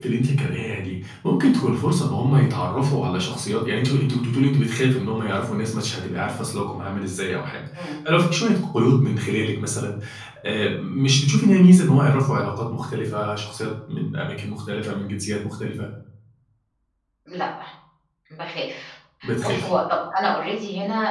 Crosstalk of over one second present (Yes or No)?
No